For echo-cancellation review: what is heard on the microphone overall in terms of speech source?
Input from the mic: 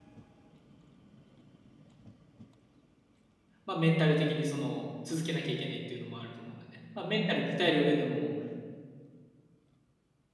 user only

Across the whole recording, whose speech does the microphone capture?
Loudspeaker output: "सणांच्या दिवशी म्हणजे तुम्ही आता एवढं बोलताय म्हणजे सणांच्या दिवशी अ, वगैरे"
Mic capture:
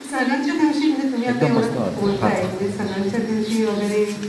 both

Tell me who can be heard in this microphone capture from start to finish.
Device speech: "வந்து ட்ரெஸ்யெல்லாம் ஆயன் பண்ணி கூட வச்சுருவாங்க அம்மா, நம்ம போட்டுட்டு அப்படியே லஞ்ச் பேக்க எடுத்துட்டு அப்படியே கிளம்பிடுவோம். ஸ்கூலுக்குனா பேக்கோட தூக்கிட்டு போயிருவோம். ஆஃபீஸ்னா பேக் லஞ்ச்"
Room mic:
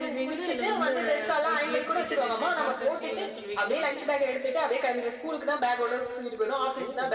both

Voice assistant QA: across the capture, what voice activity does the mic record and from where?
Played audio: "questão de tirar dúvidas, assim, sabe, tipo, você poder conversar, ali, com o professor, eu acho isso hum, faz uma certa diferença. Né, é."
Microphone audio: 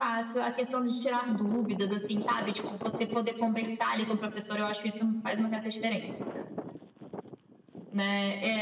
echo only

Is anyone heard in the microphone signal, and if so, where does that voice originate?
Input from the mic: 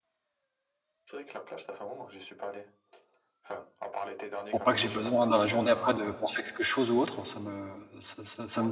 both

